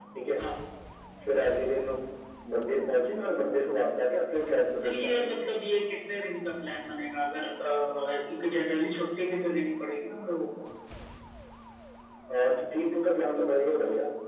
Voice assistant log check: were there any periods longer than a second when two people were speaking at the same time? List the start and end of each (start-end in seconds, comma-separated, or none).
none